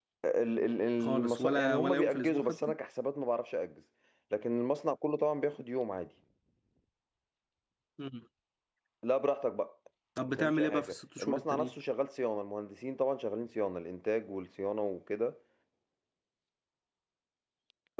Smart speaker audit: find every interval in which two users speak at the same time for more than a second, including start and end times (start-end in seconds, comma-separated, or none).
1.0-2.7, 10.4-11.7